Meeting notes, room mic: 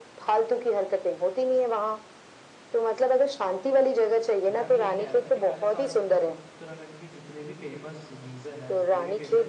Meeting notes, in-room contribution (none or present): present